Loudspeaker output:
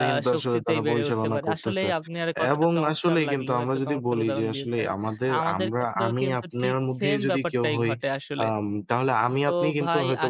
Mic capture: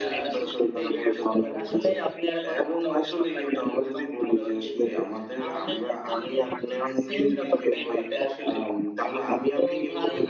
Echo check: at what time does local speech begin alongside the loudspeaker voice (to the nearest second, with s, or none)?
none